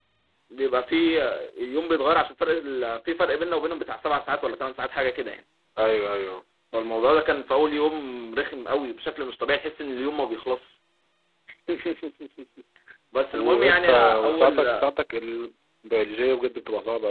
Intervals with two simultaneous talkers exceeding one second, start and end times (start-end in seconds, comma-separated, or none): 13.3-14.7